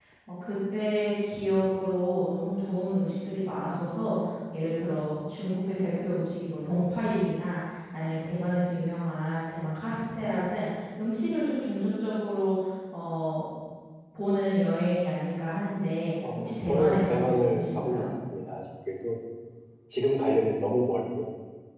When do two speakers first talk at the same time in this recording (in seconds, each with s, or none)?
16.2 s